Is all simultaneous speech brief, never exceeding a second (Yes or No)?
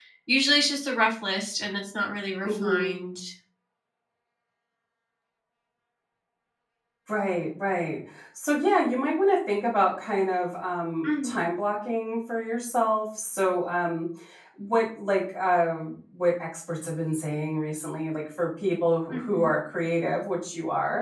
Yes